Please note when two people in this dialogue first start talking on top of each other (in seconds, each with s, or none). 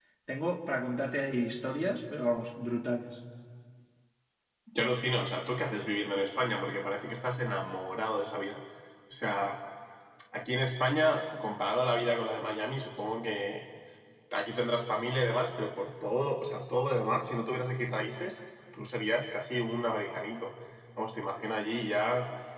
none